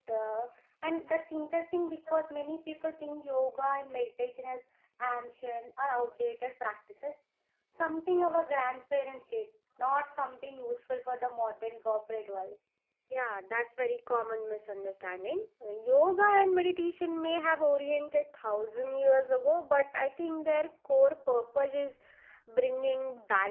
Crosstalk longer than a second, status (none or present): none